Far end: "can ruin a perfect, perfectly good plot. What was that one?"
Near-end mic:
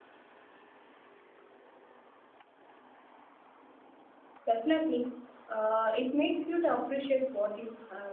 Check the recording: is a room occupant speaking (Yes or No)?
Yes